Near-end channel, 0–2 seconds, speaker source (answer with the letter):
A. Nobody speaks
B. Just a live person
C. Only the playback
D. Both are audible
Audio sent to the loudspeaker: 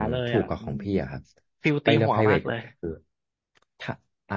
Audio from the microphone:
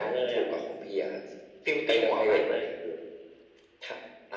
C